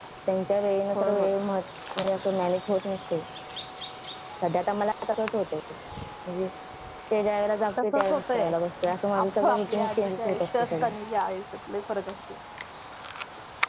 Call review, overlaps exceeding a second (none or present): present